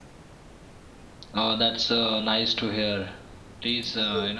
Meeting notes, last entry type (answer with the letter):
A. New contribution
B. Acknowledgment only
B